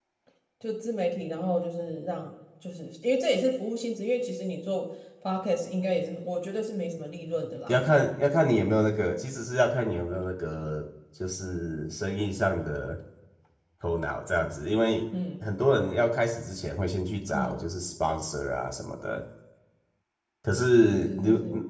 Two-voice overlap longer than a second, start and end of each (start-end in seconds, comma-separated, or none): none